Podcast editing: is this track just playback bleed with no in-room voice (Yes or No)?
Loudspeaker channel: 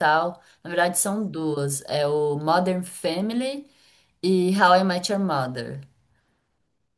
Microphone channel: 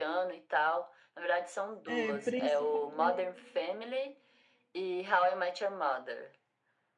No